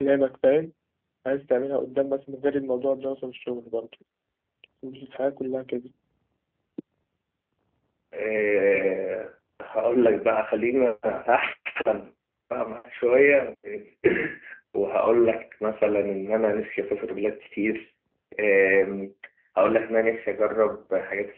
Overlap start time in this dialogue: none

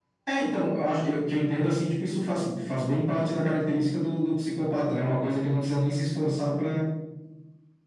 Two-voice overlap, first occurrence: none

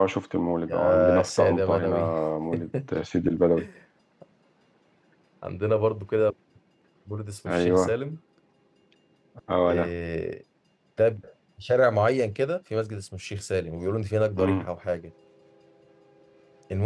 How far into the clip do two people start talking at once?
0.7 s

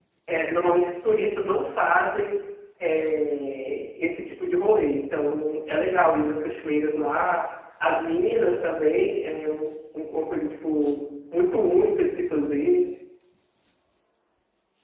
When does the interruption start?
none

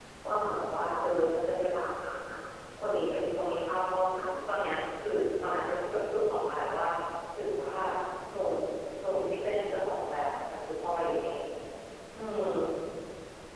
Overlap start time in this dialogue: none

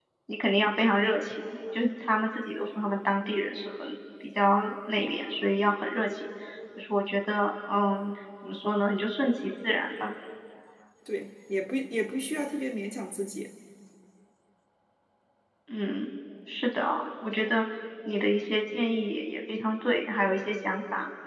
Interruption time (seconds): none

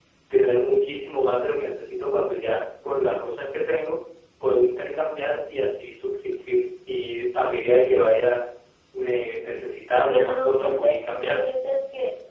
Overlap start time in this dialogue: 10.1 s

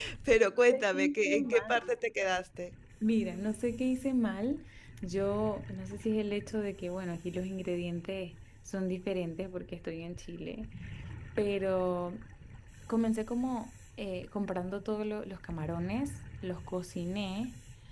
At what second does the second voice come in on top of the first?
0.7 s

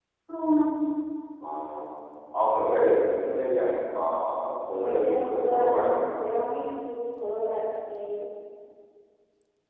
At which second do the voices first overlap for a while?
4.7 s

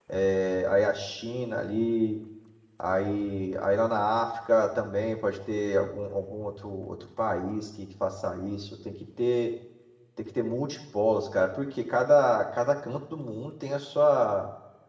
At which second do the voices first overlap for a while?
none

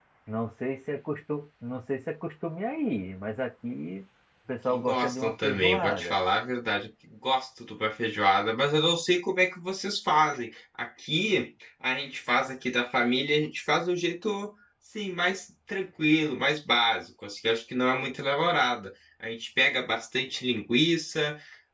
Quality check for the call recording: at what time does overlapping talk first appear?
4.7 s

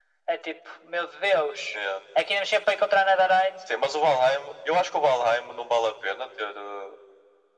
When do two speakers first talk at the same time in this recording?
none

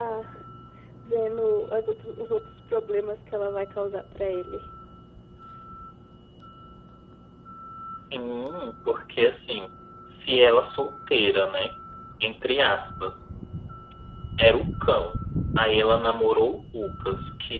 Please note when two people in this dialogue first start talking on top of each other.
none

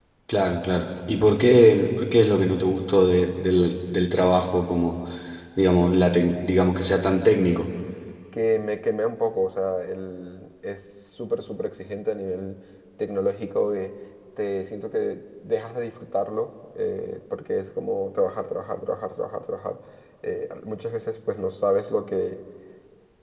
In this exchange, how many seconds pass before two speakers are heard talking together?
none

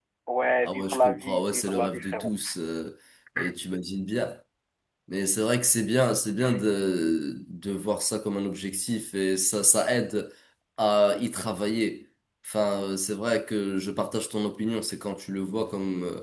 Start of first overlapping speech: 0.7 s

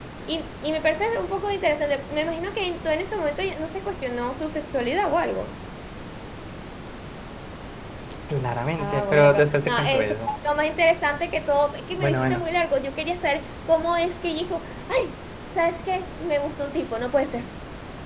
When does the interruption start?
8.8 s

